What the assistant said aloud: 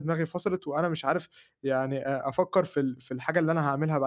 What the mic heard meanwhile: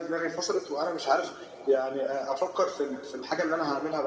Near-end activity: none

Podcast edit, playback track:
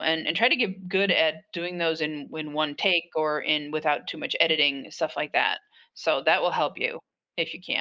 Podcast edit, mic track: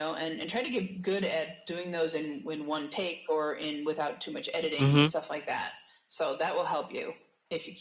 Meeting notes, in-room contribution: present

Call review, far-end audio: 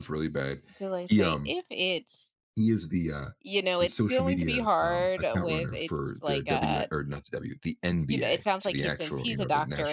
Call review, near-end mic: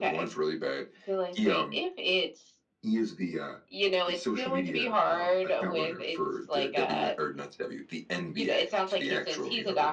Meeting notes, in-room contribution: none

